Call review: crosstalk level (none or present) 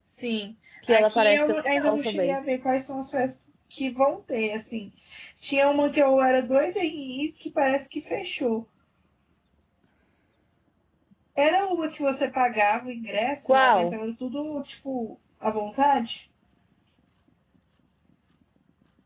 present